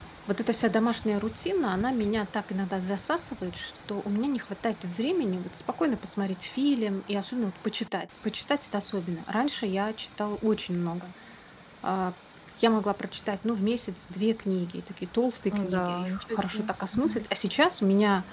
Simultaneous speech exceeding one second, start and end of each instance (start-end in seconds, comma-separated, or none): 15.5-17.2